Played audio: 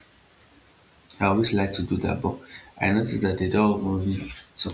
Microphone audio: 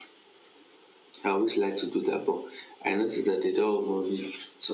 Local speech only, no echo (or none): none